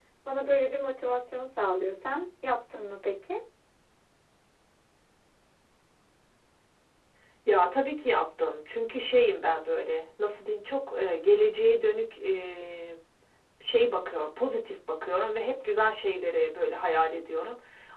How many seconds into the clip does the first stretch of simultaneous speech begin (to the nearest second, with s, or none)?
none